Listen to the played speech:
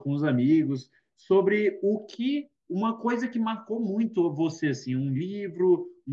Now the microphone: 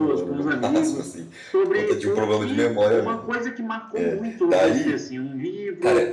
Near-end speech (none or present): present